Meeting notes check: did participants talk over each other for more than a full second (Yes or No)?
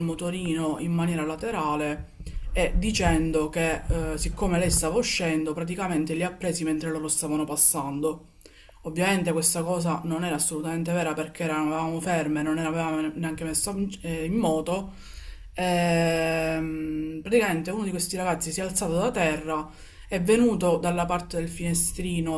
No